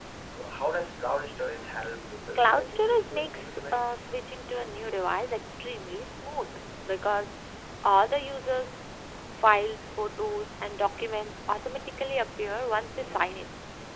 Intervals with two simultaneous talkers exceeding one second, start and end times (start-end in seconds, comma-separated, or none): 2.4-3.9